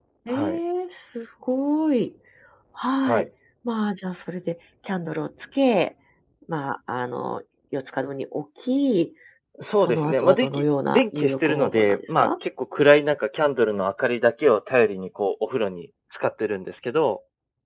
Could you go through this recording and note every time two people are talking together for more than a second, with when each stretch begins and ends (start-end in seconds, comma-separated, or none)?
9.8-12.3